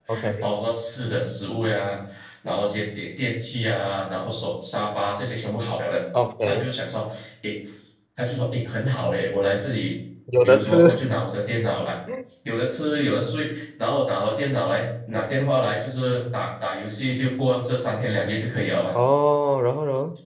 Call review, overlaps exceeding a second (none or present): none